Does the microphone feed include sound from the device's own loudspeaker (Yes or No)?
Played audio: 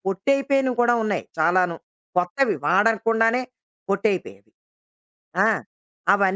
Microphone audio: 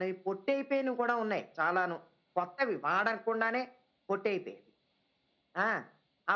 Yes